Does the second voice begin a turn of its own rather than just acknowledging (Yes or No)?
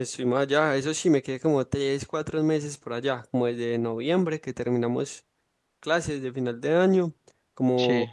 No